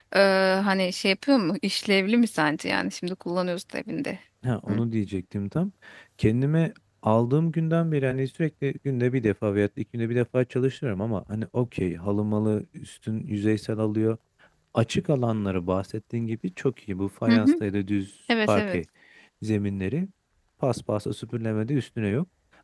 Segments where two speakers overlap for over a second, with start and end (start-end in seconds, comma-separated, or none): none